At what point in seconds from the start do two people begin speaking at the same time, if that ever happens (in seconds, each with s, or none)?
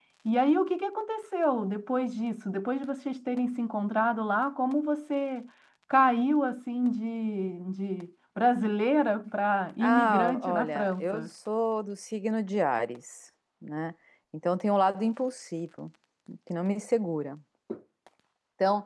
9.8 s